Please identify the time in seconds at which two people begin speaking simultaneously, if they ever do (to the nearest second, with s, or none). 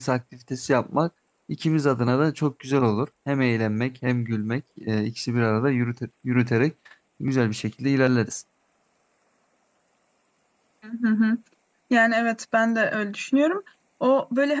none